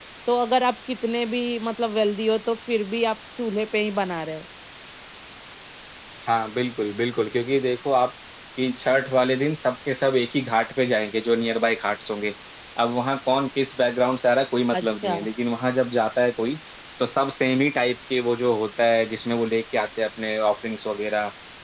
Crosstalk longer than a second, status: none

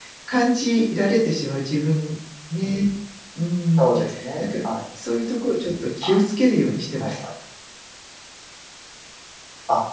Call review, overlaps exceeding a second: none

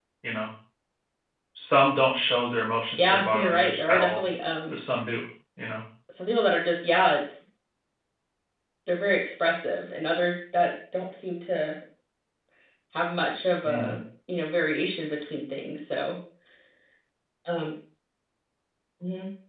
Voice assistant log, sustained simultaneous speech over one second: present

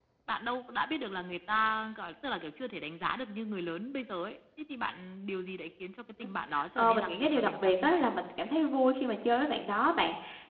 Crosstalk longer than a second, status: present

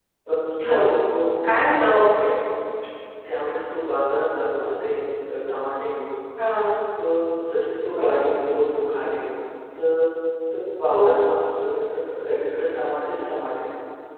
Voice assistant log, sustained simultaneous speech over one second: none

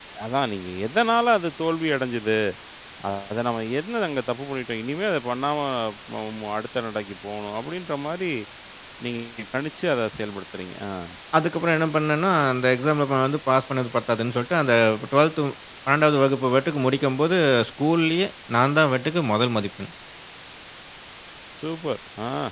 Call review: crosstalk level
none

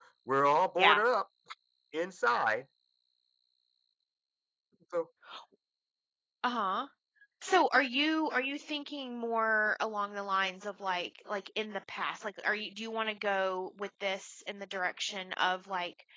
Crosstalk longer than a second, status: none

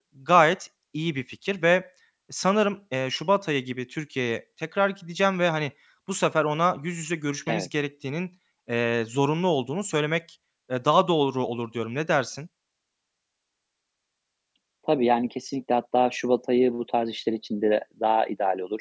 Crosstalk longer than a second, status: none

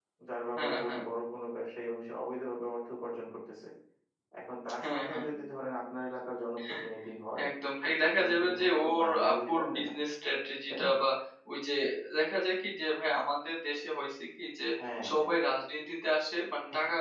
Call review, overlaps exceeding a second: present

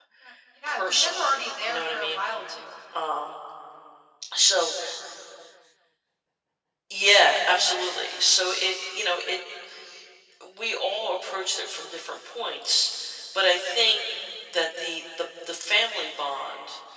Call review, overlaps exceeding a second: present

